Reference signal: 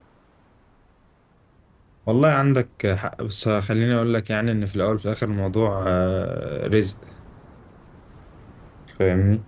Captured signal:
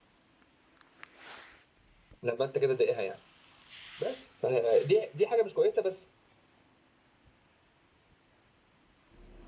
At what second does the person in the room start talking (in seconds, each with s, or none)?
2.2 s